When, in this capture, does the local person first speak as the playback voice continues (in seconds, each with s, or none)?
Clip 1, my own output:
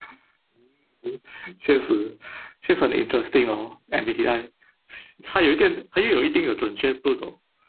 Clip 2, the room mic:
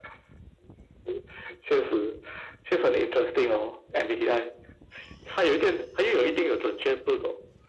none